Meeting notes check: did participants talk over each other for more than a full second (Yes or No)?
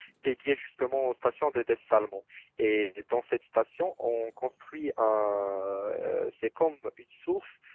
No